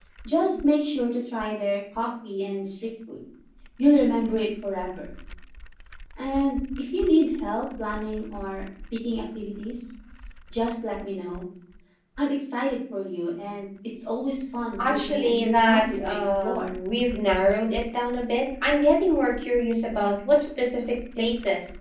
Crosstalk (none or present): present